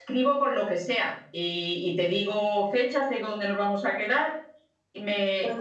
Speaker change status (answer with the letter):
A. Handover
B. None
B